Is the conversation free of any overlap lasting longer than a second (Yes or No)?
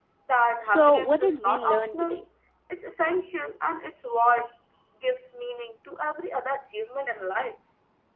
No